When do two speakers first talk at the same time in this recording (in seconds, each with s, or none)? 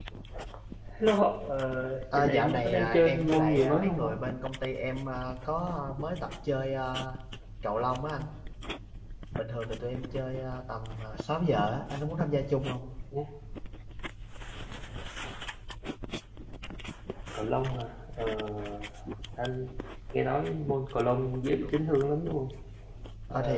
2.1 s